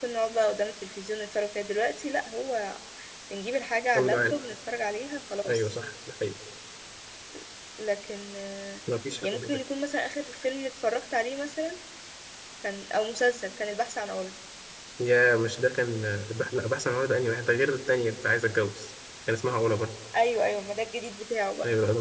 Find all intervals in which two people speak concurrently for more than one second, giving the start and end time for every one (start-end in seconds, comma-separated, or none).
none